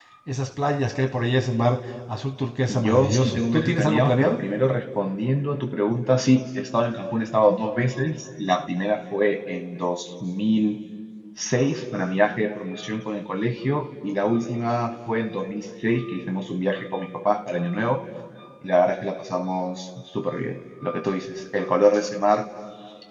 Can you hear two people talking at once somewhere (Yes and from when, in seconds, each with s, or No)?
Yes, from 2.7 s